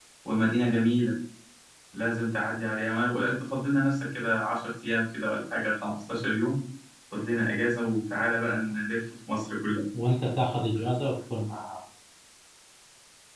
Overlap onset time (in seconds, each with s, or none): none